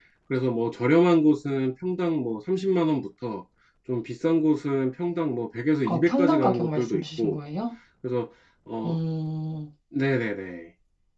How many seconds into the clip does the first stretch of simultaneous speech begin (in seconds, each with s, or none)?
5.8 s